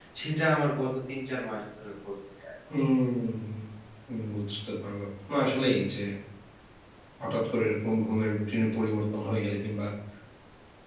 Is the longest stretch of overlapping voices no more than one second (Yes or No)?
Yes